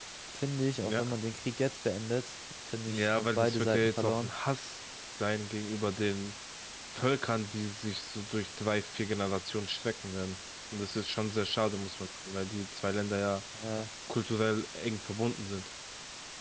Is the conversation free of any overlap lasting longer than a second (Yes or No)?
No